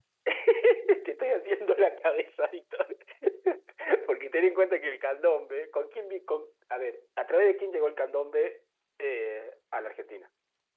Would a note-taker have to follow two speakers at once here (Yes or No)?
No